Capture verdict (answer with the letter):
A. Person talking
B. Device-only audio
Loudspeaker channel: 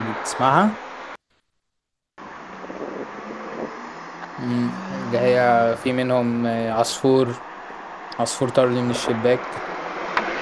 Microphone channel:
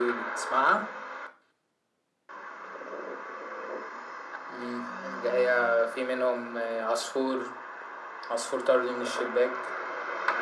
B